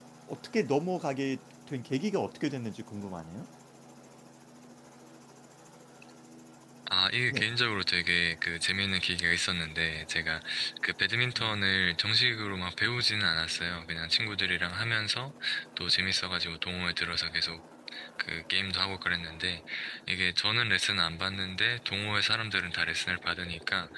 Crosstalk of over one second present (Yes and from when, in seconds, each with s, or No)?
No